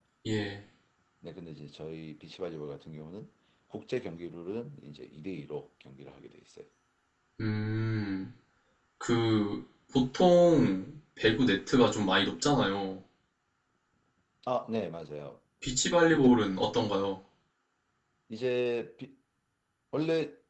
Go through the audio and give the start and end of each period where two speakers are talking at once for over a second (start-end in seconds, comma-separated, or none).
none